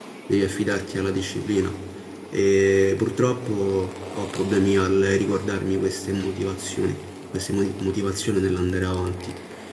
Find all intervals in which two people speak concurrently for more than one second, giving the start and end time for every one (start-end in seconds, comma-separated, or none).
none